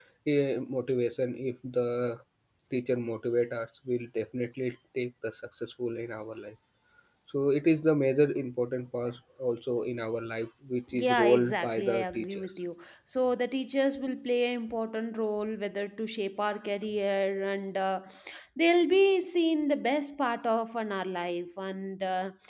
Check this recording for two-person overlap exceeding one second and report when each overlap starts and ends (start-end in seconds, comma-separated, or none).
10.9-12.5